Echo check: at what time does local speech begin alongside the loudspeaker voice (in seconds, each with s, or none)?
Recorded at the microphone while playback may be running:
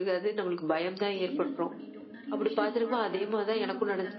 0.8 s